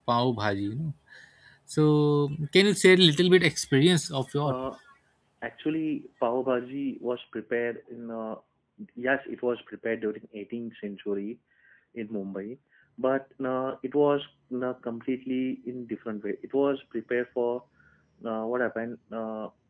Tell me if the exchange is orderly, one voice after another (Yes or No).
Yes